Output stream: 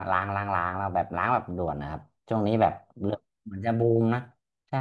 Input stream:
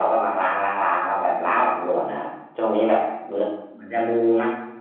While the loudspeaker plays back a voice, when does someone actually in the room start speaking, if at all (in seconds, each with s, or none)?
none